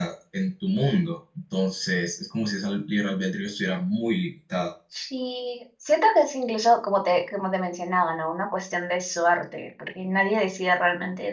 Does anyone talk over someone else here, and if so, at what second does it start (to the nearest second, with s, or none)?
none